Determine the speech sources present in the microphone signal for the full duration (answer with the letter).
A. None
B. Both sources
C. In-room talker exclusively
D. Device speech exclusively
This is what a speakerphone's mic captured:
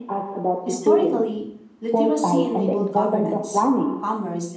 B